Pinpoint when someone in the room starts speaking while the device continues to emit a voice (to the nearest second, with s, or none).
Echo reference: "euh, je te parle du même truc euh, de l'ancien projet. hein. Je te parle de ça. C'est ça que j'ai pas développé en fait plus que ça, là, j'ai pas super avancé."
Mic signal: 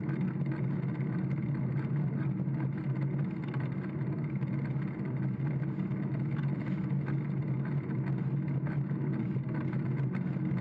none